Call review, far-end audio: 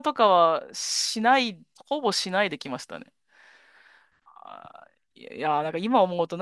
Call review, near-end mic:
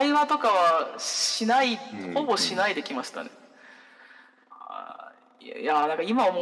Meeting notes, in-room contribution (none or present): present